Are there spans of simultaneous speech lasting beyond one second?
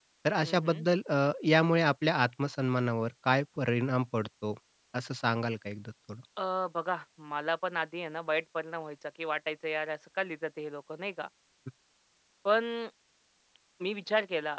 No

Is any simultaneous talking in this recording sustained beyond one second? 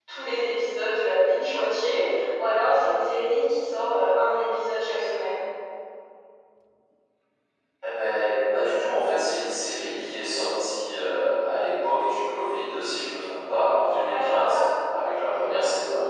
No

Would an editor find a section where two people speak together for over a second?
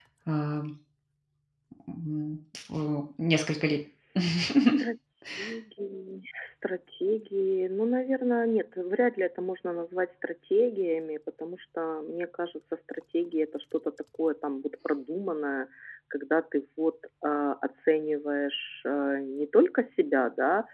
No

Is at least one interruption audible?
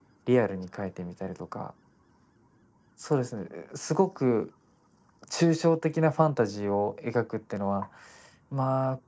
No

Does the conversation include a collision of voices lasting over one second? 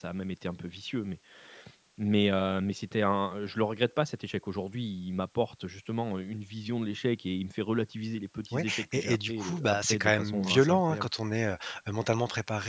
Yes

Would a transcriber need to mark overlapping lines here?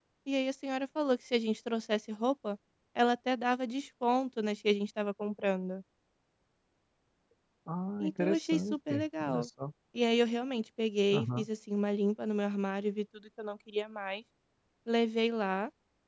Yes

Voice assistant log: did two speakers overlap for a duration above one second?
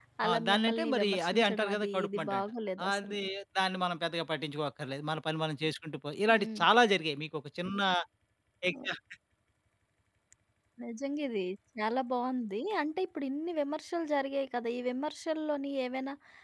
Yes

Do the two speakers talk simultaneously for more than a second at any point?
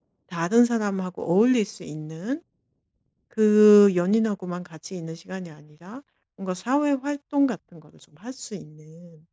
No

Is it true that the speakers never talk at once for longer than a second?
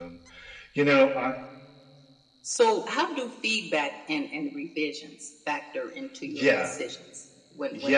Yes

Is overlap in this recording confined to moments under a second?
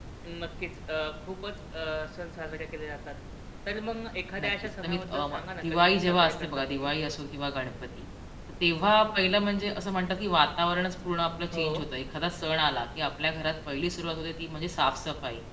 No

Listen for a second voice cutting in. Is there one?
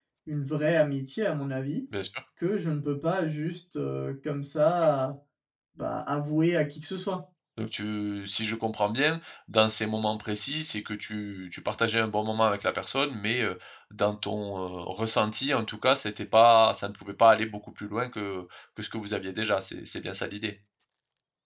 No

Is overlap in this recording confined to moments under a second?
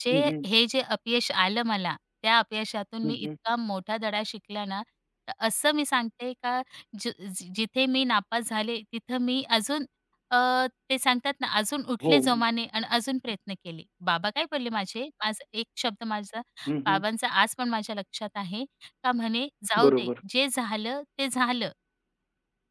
Yes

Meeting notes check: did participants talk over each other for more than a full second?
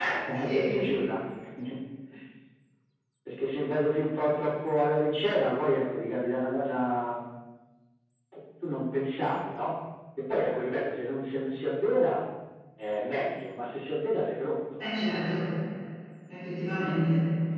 No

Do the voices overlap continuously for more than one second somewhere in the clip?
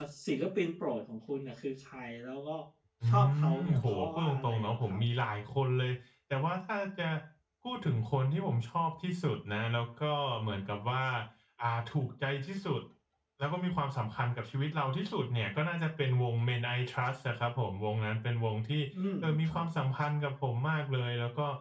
Yes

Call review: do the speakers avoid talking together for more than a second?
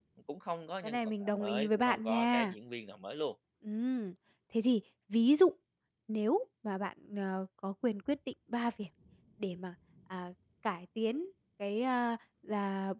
No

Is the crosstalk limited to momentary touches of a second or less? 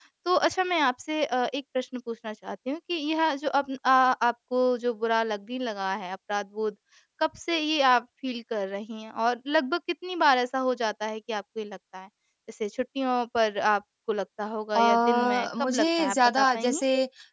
No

